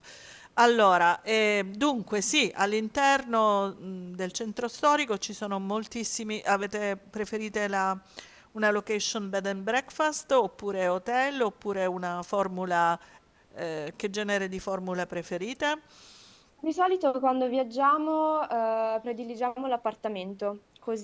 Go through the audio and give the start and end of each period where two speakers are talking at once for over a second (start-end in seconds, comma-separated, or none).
none